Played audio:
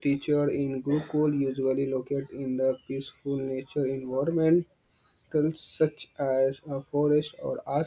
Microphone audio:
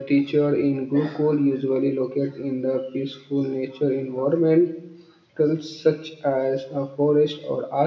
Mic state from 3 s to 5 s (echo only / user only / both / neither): echo only